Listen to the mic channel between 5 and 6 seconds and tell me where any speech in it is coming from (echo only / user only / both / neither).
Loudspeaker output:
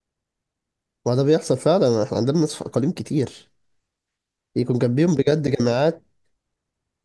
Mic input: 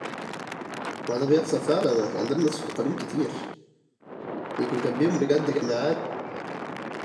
echo only